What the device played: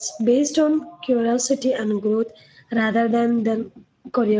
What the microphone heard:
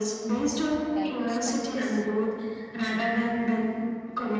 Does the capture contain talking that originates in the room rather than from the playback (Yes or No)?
Yes